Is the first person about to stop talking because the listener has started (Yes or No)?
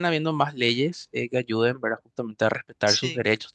No